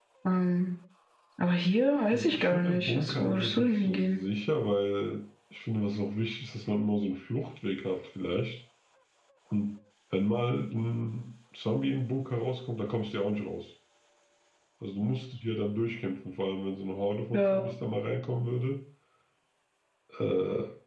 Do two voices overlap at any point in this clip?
Yes, from 2.1 s

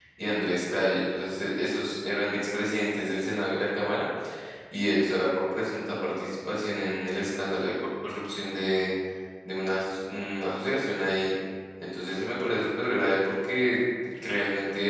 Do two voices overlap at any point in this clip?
No

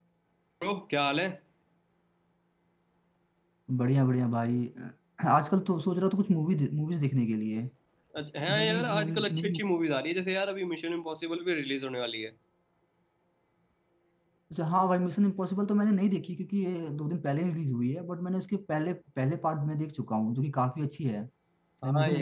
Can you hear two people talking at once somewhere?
Yes, from 8.4 s

